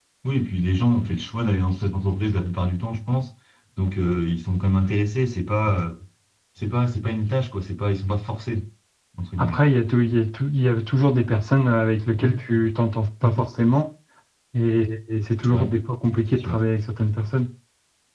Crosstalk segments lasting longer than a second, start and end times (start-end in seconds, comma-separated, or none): none